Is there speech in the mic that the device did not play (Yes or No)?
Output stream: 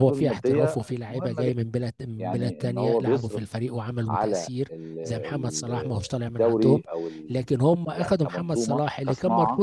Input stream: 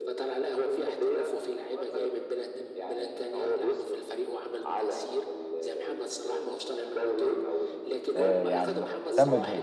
Yes